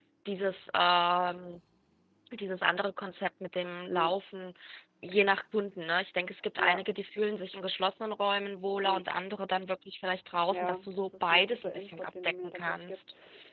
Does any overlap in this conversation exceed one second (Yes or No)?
Yes